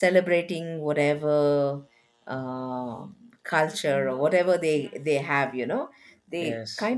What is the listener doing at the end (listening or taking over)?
listening